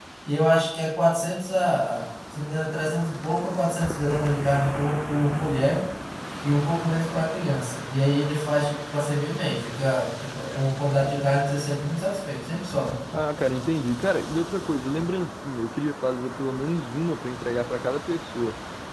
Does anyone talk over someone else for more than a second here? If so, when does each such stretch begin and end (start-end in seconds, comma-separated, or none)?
none